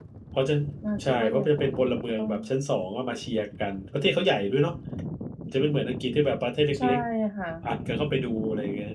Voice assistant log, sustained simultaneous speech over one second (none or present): present